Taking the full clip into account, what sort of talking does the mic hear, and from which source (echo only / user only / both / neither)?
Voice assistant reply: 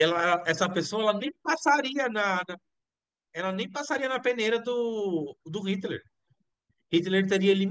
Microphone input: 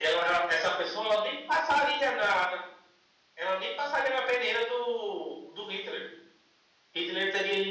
echo only